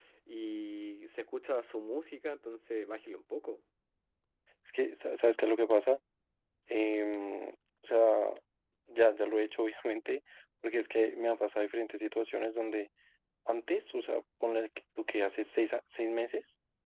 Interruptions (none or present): none